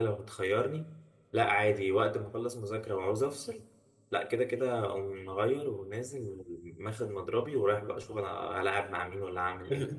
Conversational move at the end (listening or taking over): taking over